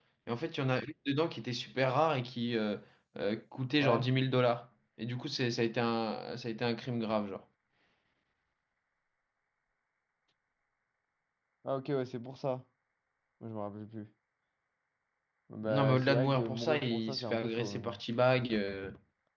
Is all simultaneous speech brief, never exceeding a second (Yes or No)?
No